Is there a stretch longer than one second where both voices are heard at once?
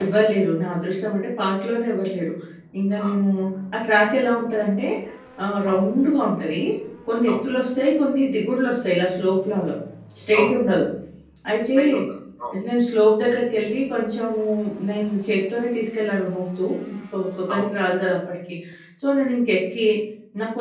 No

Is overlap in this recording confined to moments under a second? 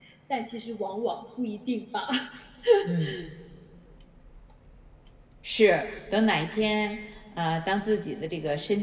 Yes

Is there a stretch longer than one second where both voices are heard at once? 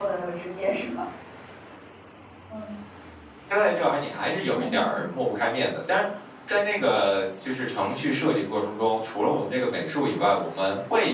No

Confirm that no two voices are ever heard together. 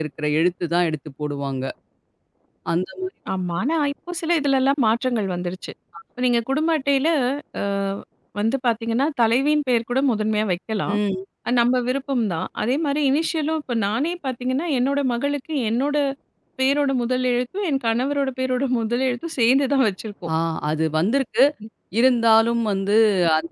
Yes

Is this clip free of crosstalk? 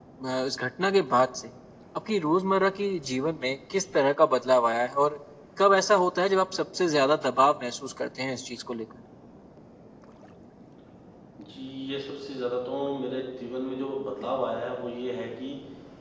Yes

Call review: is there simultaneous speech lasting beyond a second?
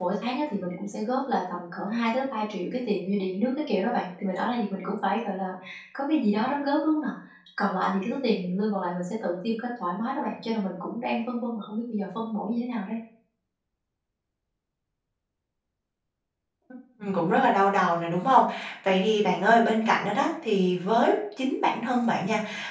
No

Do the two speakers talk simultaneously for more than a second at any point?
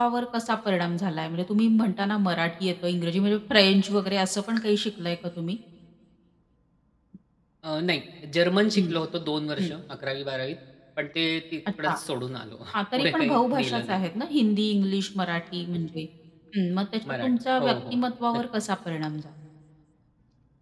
Yes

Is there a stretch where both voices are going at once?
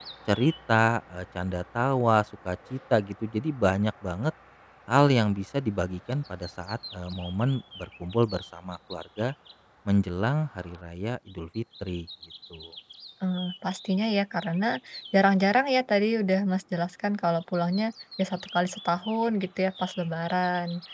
No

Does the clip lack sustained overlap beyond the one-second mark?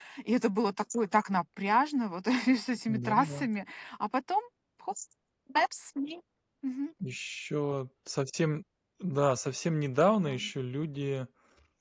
Yes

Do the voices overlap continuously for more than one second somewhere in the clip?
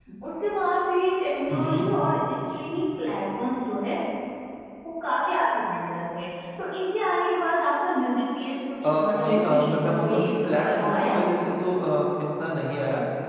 Yes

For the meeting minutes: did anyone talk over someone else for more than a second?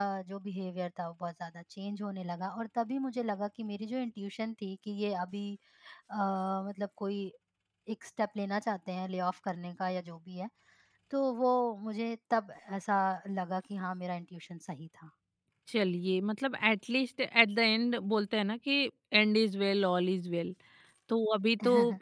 No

